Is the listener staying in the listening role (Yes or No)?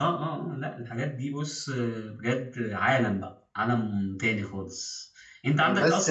Yes